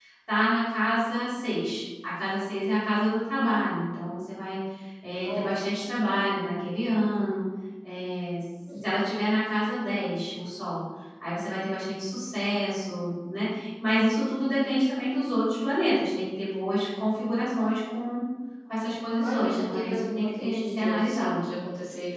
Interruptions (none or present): present